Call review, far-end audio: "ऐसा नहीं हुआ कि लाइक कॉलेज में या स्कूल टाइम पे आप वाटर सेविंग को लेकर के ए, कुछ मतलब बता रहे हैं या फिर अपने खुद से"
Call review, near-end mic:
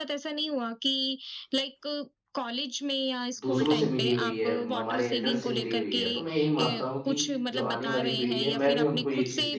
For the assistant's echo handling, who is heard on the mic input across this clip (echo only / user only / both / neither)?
both